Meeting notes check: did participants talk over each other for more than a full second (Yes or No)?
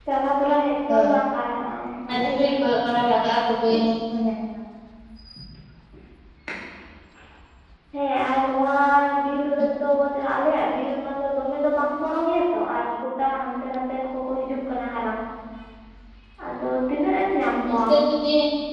No